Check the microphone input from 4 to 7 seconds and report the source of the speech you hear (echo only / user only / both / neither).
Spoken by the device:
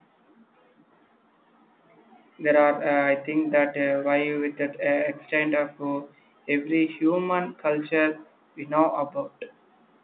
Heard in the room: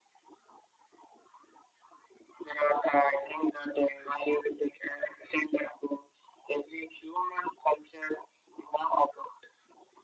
echo only